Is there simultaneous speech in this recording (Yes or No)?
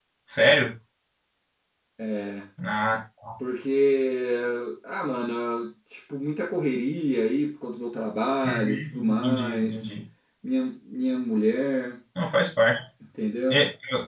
Yes